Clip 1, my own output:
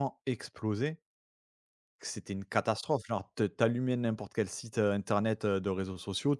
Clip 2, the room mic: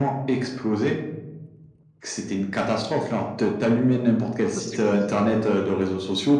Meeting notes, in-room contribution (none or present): present